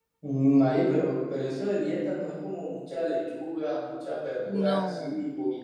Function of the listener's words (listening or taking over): listening